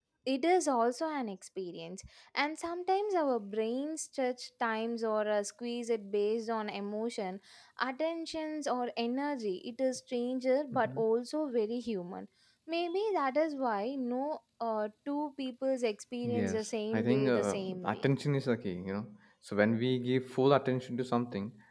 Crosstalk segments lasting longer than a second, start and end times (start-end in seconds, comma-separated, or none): 16.2-18.0